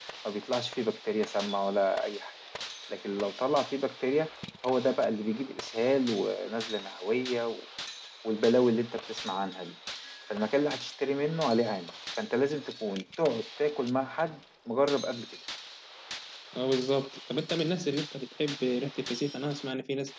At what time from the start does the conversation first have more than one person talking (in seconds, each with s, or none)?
none